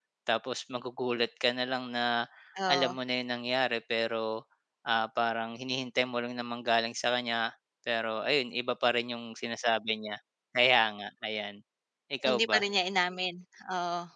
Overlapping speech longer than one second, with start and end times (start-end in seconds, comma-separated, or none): none